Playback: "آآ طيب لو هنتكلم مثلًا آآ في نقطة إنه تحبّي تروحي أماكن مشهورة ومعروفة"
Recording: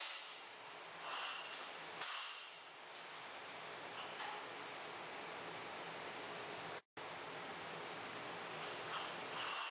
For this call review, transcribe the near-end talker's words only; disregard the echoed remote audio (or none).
none